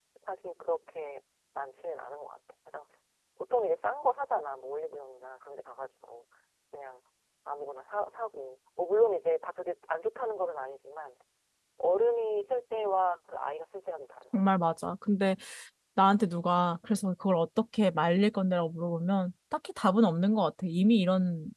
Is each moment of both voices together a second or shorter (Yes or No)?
Yes